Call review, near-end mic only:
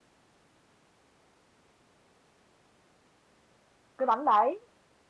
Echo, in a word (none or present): none